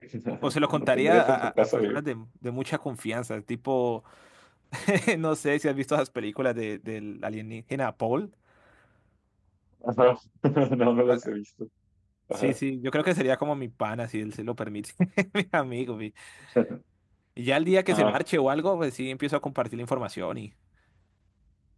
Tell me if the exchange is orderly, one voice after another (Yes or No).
No